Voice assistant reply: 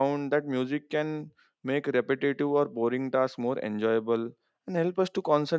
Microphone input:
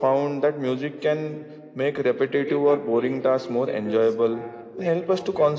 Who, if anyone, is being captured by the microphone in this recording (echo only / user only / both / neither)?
both